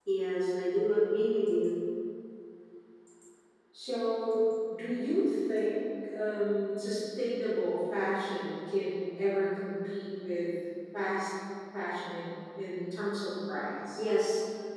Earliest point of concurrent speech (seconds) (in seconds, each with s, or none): none